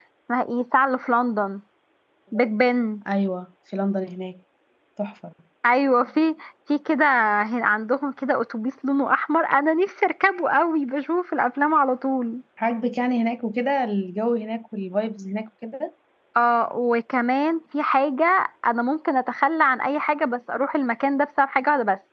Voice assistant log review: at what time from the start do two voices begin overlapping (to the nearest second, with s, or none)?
none